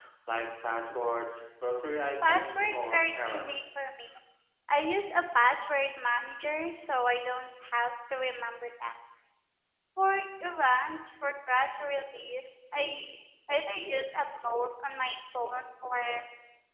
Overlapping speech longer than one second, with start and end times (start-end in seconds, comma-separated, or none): 2.2-3.6